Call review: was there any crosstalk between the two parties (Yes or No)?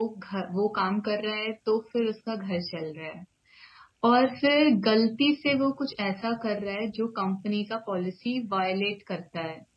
No